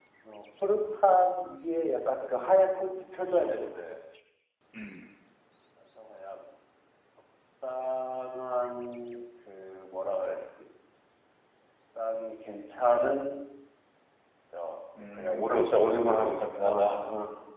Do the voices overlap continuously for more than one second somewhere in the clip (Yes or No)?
Yes